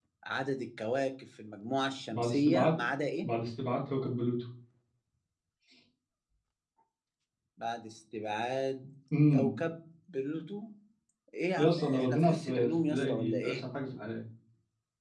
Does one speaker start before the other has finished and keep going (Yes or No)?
Yes